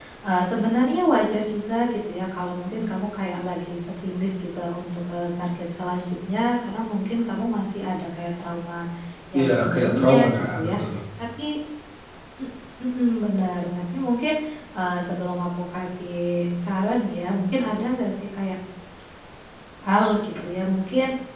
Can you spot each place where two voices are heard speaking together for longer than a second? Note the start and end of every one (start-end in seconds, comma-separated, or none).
9.4-10.7